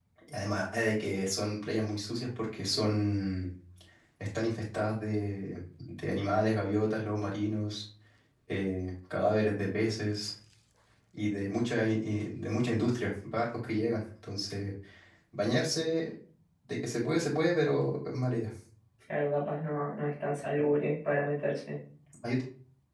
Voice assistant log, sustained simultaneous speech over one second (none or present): none